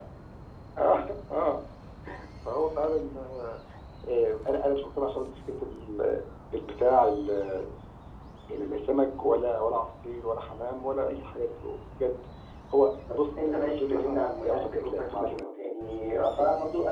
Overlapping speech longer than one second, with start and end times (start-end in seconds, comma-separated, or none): 13.1-15.5